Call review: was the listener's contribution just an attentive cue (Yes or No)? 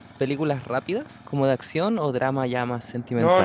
No